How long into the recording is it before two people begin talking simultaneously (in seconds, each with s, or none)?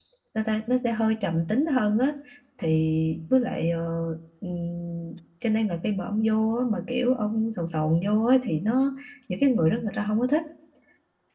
none